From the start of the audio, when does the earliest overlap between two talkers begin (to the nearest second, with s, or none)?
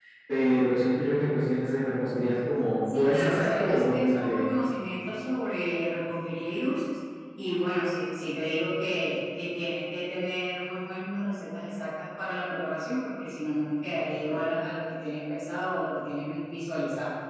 3 s